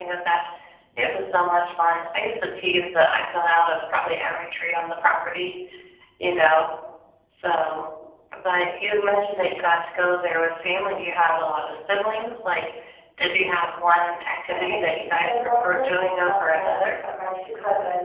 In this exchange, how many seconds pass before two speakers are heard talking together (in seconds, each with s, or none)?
14.4 s